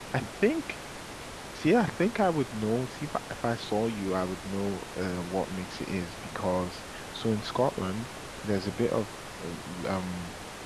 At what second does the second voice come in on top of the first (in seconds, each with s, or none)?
none